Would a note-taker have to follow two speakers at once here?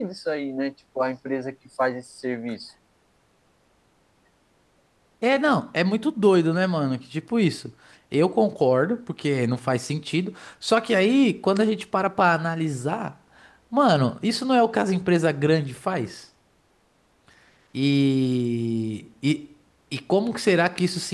No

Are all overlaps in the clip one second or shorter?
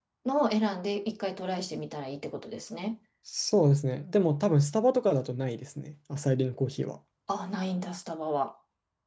Yes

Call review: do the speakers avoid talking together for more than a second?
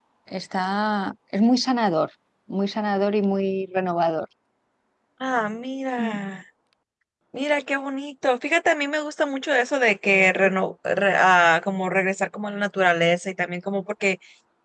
Yes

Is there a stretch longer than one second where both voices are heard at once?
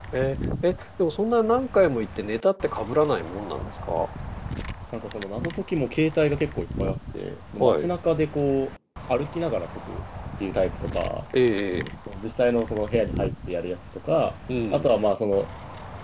No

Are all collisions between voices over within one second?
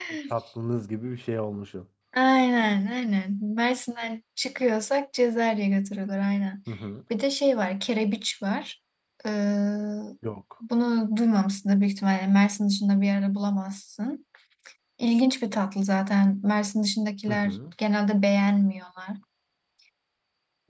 Yes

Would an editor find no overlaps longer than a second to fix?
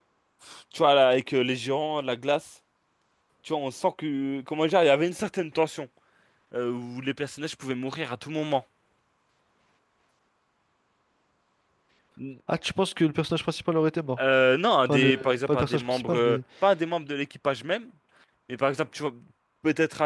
No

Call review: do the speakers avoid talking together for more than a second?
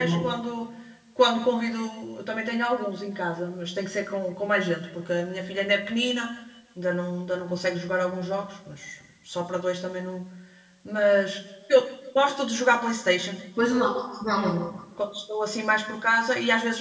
Yes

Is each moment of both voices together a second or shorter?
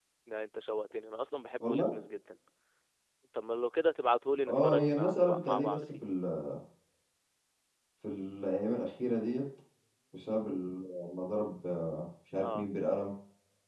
No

